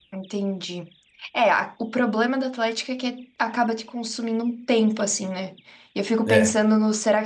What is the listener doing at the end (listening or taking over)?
listening